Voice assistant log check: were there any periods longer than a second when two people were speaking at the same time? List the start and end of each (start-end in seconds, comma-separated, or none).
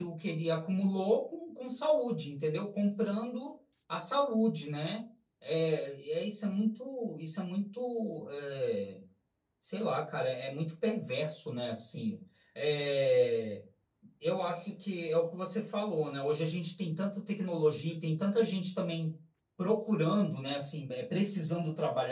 none